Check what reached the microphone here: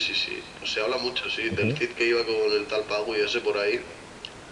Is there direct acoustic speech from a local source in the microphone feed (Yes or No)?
Yes